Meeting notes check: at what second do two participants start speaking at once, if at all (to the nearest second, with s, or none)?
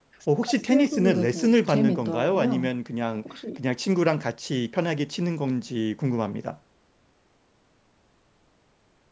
1 s